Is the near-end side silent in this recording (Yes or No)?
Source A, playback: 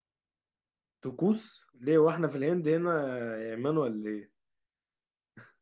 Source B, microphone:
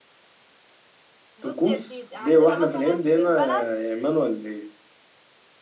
No